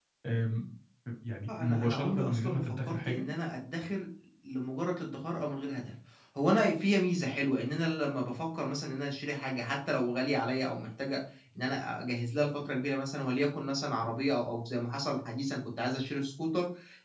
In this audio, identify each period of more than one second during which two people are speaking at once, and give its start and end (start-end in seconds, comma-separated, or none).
1.5-3.2